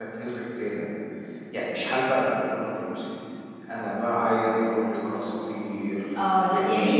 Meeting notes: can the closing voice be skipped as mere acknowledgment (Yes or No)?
No